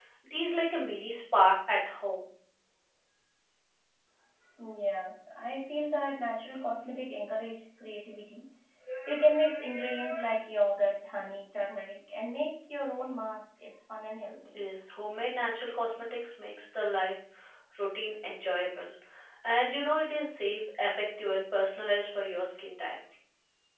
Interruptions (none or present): none